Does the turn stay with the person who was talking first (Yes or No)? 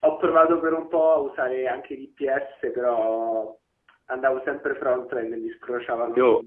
No